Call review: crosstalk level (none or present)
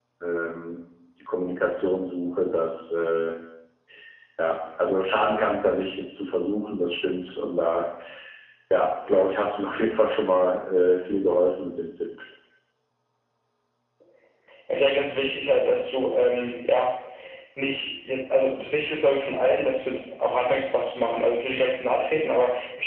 none